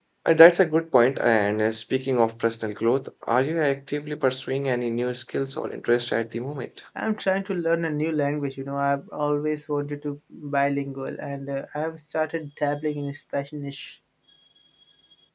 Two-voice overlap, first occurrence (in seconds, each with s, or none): none